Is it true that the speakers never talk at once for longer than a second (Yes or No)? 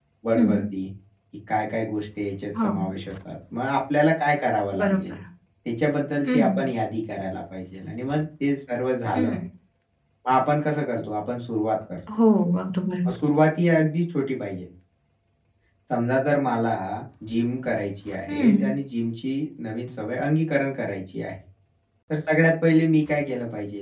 Yes